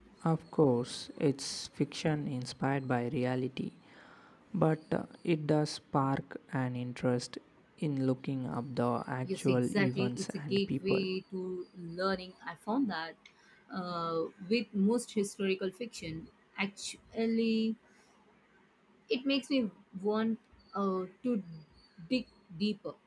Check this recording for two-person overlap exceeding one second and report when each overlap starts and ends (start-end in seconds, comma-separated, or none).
9.2-11.1